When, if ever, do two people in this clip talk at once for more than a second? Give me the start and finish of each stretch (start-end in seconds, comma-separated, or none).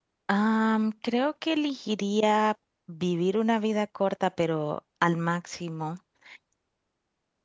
none